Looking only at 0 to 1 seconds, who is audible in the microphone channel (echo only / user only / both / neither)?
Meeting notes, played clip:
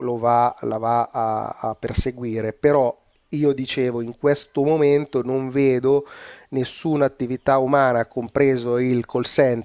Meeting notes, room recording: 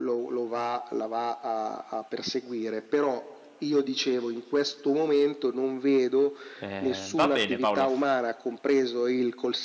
echo only